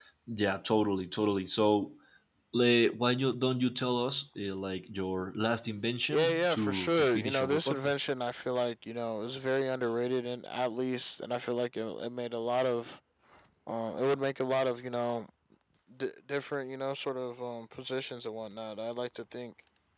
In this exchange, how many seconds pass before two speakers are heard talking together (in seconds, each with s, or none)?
6.1 s